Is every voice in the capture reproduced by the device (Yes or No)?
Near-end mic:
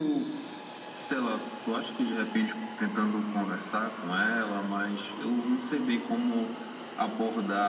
Yes